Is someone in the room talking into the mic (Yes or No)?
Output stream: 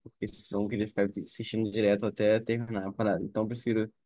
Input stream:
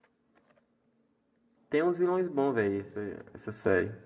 Yes